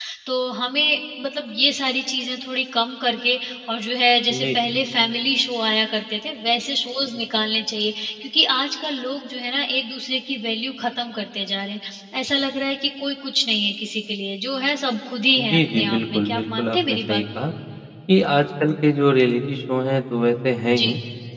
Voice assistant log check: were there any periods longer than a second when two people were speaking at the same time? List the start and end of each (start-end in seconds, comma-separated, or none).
15.4-17.5